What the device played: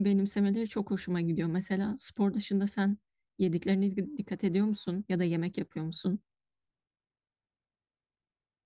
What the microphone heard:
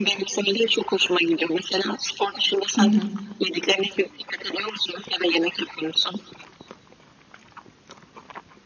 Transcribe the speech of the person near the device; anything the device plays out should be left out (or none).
Hı hı.